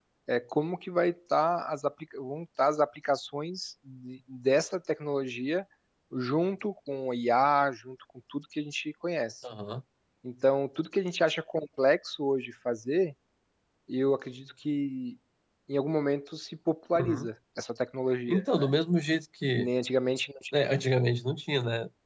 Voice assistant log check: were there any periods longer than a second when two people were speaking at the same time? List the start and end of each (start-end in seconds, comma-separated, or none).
none